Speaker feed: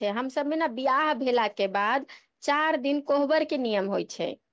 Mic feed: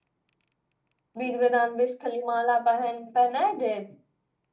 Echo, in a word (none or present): none